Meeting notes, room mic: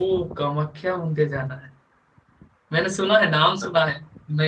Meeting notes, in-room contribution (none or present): present